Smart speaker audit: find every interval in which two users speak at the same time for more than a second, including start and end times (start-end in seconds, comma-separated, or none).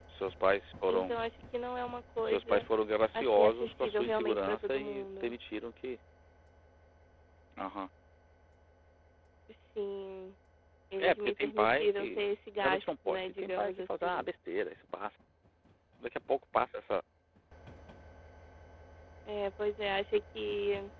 3.1-5.4, 11.0-12.2, 12.6-14.3